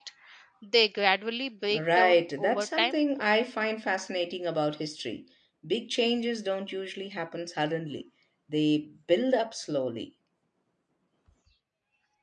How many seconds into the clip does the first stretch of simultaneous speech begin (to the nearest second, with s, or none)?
2 s